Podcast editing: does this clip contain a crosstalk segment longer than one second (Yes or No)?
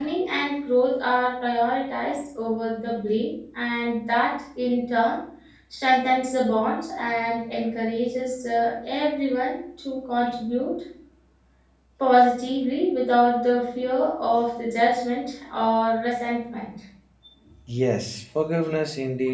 No